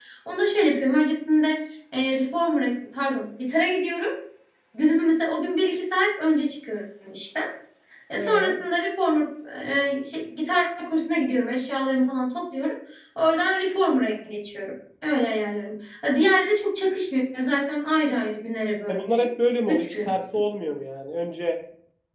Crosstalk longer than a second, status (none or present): none